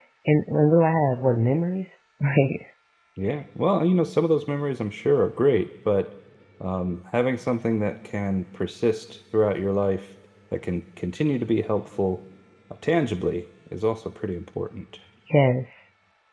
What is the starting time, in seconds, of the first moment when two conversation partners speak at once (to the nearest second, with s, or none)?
none